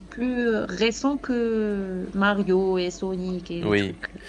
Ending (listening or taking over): taking over